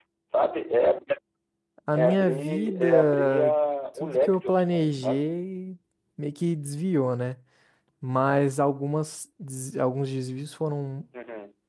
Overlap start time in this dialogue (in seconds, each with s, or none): 1.9 s